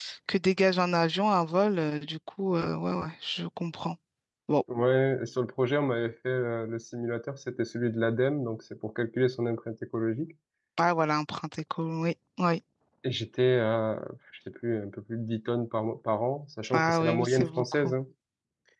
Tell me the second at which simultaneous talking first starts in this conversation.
16.7 s

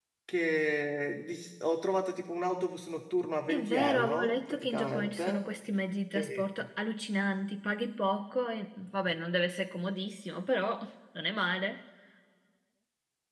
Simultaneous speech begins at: 3.5 s

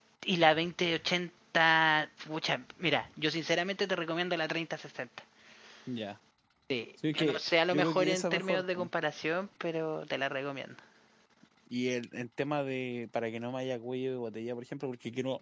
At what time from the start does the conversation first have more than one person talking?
7.1 s

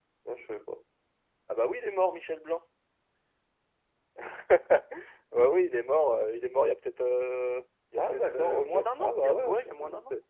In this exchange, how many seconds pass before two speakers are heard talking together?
8.0 s

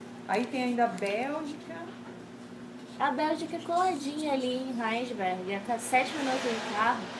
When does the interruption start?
none

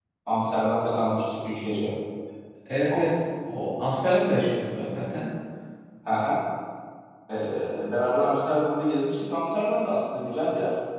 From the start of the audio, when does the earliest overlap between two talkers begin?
none

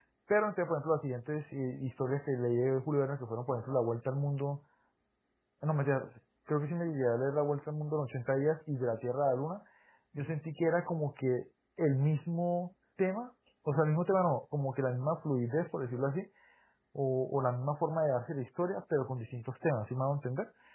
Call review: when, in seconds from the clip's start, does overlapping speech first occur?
none

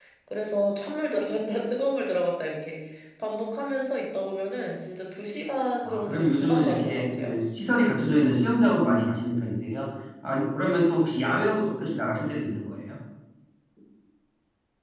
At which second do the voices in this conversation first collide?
5.8 s

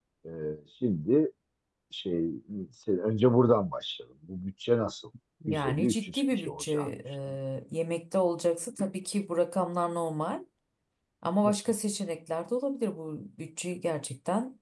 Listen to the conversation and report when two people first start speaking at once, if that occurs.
5.4 s

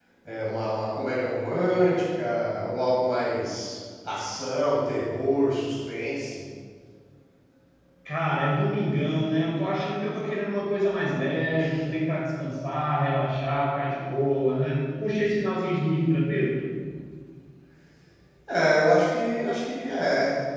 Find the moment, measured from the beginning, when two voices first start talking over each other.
none

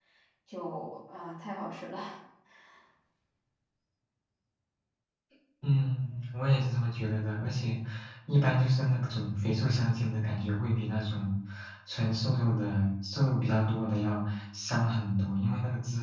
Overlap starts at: none

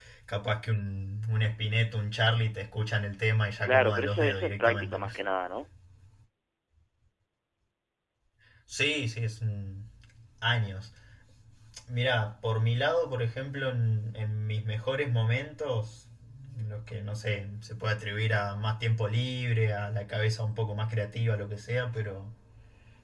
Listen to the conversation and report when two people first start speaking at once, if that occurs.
3.7 s

